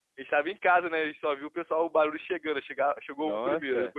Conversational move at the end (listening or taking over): taking over